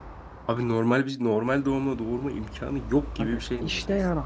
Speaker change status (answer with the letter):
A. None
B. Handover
B